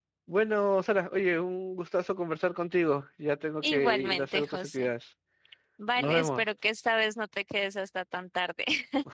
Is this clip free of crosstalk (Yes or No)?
No